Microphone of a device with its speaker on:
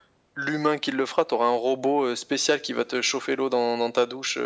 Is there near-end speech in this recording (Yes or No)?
No